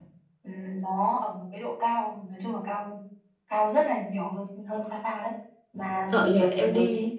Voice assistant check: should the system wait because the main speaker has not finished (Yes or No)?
No